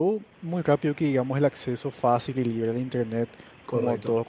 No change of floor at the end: Yes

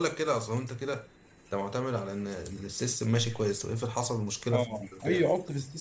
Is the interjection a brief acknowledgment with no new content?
No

